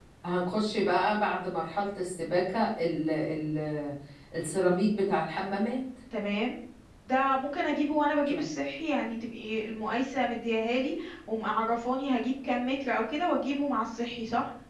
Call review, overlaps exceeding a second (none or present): none